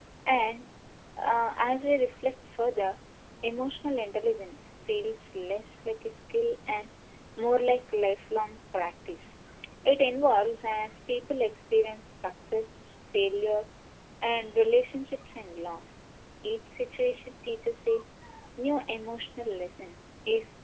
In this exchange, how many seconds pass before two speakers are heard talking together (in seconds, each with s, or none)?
none